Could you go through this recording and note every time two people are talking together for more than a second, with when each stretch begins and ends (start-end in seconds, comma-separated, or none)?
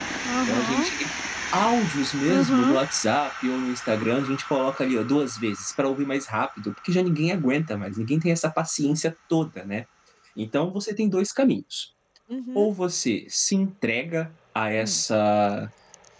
none